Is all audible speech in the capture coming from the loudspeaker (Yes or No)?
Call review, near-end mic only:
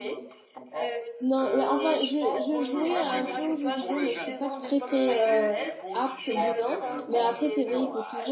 No